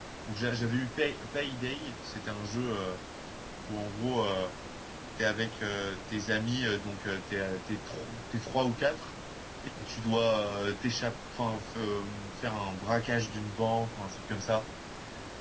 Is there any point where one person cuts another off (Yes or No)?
No